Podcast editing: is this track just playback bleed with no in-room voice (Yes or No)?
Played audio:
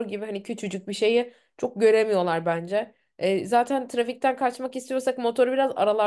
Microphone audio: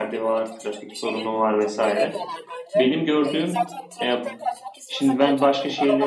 No